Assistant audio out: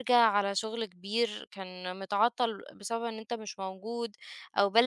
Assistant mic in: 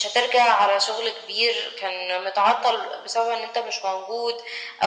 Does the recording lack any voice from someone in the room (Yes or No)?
Yes